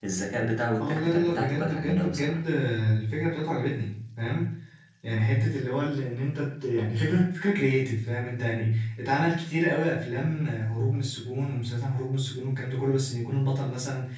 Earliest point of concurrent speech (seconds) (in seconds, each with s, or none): 0.8 s